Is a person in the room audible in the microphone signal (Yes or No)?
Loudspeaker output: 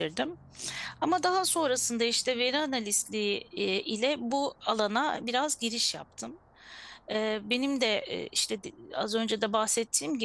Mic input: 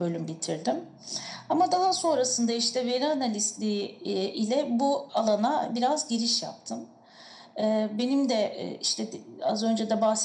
No